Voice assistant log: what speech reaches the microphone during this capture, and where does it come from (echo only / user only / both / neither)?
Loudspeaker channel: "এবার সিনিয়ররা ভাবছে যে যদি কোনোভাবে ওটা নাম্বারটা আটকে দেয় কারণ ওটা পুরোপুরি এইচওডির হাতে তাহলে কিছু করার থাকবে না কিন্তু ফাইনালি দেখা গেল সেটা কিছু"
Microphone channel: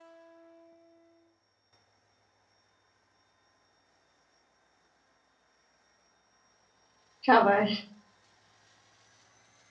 user only